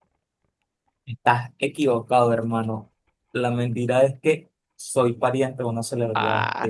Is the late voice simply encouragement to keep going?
No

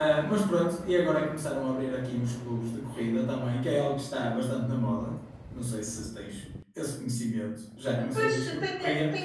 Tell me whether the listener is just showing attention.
No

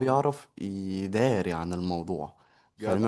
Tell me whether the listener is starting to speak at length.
No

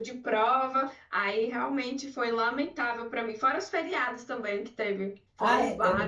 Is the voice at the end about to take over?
Yes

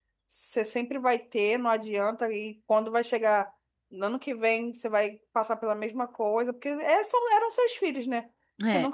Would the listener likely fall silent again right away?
Yes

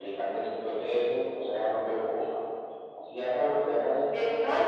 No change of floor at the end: No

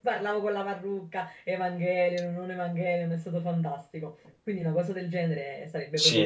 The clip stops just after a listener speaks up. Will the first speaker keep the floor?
No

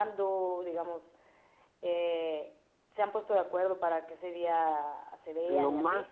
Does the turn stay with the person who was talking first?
No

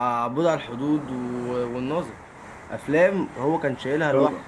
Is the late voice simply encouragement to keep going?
Yes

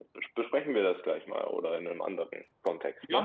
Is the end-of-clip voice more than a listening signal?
Yes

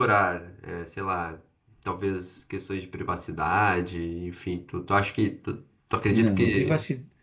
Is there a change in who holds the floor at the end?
Yes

